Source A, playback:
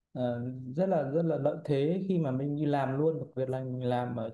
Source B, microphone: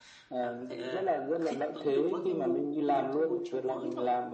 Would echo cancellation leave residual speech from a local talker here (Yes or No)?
Yes